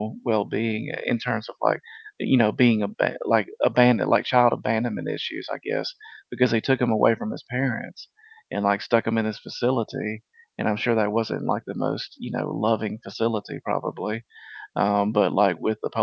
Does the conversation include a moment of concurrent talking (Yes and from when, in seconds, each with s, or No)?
No